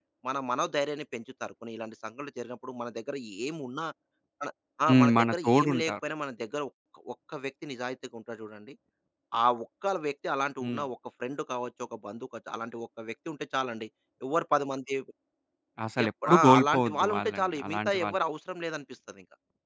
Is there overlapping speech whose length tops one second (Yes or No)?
Yes